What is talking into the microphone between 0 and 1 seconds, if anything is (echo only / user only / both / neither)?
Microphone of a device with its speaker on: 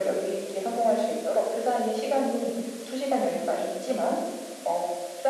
echo only